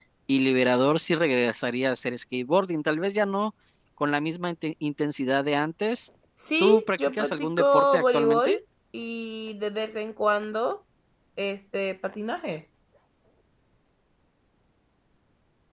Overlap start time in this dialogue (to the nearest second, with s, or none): 7 s